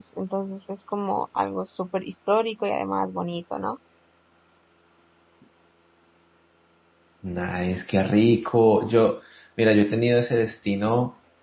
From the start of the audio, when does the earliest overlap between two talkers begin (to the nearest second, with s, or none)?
none